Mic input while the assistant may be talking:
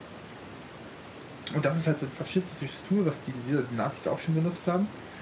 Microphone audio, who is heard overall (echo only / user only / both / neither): user only